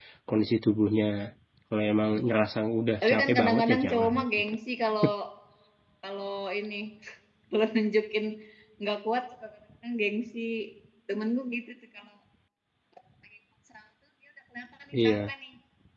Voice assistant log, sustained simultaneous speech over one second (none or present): present